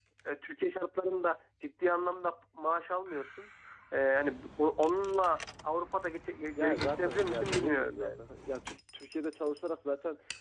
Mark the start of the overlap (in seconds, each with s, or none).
6.6 s